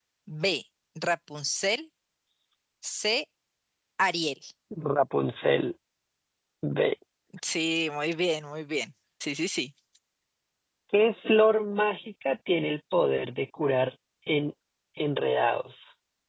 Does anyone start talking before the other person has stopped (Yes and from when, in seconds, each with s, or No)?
No